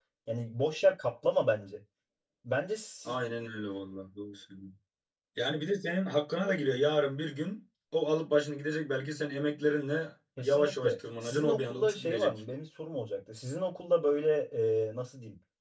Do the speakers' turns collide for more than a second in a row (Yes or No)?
Yes